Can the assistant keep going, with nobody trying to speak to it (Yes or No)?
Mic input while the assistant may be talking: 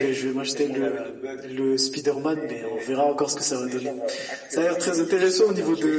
Yes